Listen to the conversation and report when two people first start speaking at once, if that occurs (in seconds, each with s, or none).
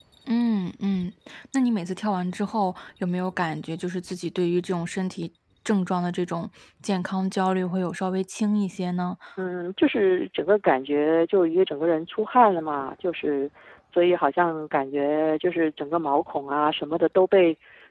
none